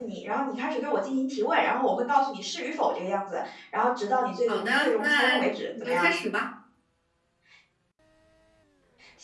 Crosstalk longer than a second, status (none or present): present